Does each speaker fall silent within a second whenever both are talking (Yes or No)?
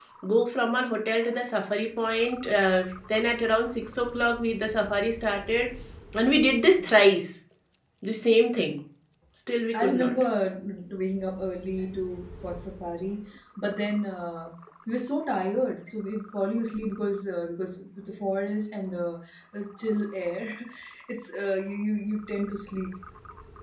Yes